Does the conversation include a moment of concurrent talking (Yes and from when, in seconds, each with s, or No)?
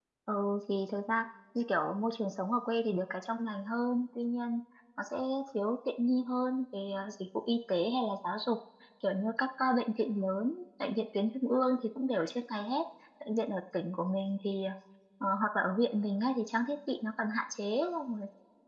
No